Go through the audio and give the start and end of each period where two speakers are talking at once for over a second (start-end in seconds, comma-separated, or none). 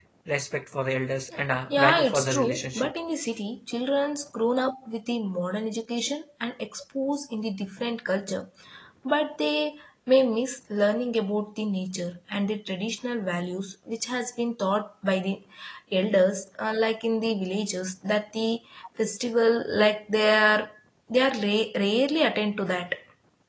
1.7-2.9